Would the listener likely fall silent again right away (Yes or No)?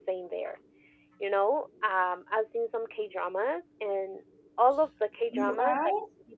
Yes